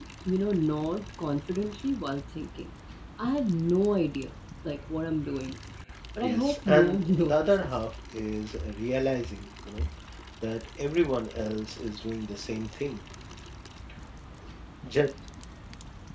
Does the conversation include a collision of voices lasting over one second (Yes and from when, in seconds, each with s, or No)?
Yes, from 6.2 s